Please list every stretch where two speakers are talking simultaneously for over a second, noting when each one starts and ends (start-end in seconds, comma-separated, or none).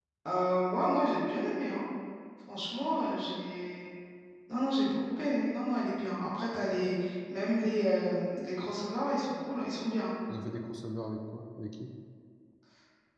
none